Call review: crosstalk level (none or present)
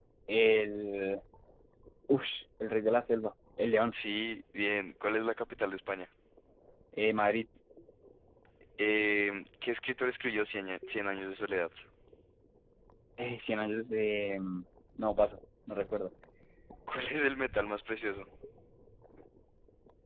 none